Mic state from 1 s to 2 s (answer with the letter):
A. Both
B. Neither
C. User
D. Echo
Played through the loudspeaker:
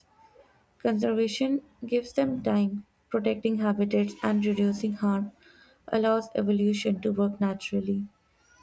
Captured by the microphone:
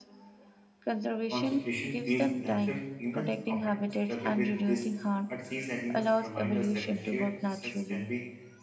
A